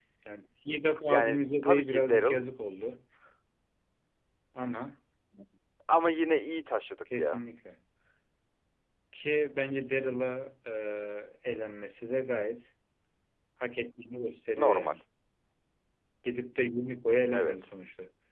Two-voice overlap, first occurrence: 1.1 s

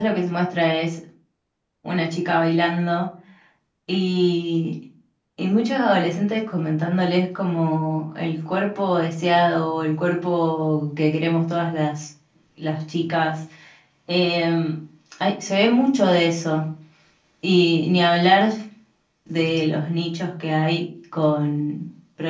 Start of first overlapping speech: none

